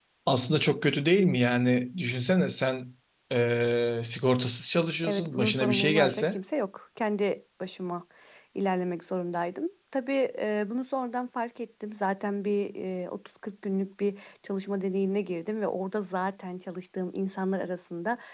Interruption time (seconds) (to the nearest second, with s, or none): 5 s